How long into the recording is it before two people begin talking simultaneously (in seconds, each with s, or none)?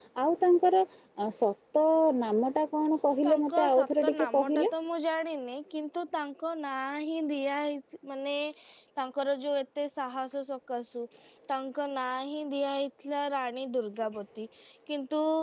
3.2 s